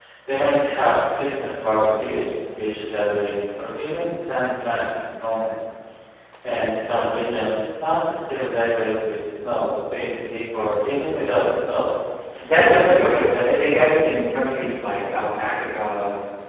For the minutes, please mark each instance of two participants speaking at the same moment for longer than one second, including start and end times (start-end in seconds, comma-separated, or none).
12.7-14.2